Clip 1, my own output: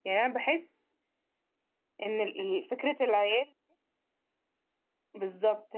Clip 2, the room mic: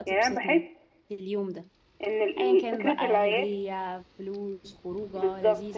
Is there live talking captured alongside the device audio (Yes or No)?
Yes